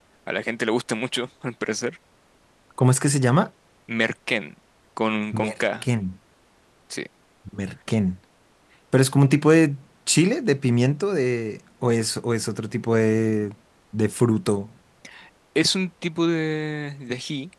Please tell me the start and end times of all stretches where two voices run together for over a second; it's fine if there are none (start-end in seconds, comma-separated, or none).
none